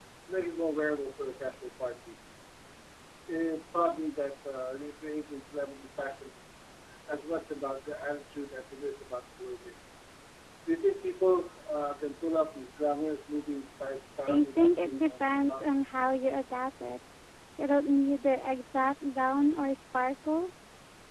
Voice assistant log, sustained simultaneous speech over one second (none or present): present